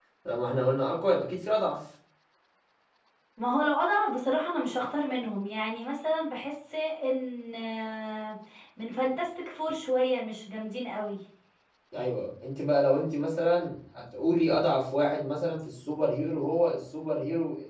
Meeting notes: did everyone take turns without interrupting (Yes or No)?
Yes